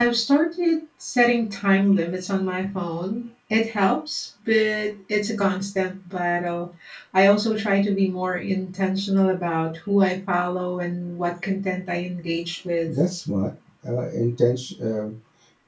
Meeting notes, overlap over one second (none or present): none